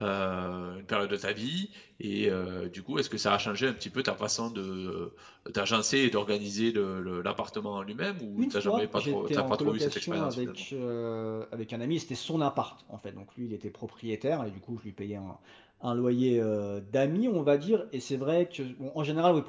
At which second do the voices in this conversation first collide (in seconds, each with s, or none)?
8.4 s